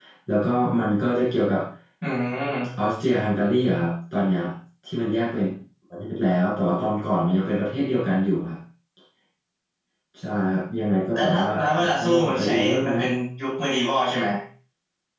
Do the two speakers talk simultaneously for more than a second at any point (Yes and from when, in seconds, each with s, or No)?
Yes, from 11.1 s